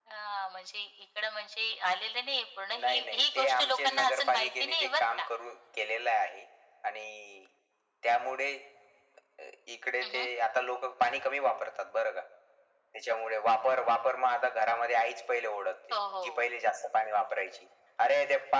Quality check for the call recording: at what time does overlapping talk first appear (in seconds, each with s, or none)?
2.7 s